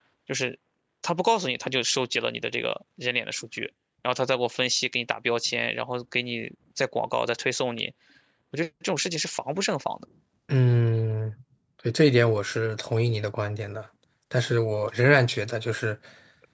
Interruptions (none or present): none